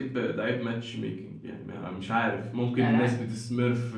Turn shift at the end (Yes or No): No